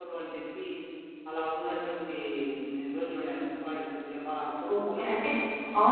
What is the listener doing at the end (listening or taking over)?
taking over